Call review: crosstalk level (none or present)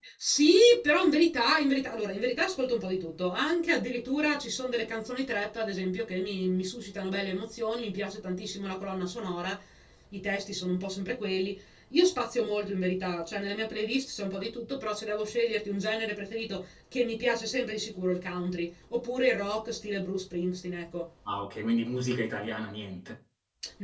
none